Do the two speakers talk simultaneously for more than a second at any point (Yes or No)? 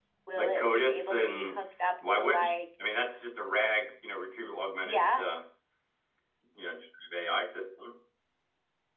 Yes